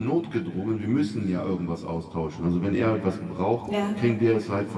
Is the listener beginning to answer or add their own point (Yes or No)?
No